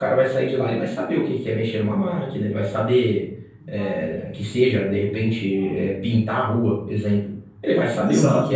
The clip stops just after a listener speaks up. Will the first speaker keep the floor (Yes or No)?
Yes